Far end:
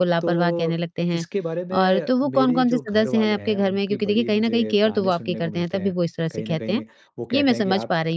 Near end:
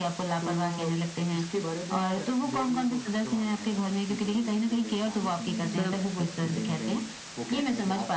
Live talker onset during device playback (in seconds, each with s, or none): 5.7 s